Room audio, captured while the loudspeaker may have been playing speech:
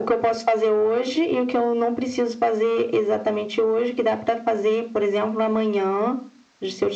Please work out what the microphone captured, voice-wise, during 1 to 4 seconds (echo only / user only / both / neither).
echo only